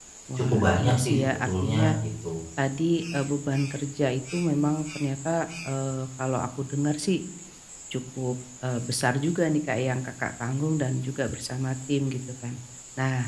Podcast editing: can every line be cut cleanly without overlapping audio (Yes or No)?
No